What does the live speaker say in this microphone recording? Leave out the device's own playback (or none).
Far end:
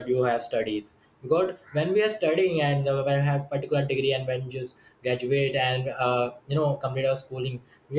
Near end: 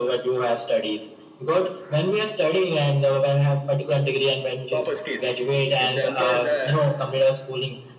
proper skills if the employees uh,